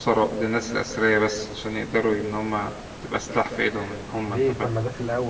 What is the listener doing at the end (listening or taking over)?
taking over